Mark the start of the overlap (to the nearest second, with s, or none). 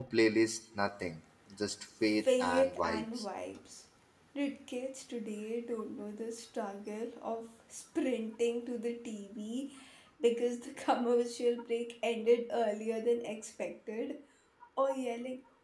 2 s